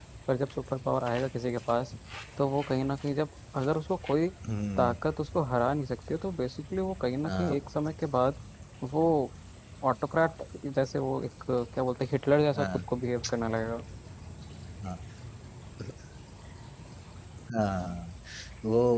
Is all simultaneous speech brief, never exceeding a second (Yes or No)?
Yes